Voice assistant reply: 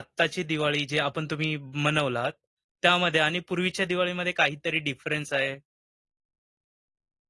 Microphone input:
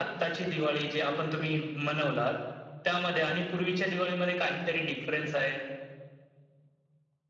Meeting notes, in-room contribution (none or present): none